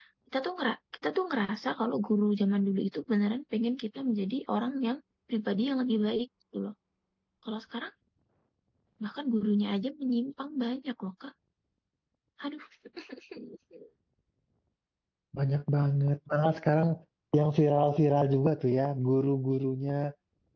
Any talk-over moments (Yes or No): No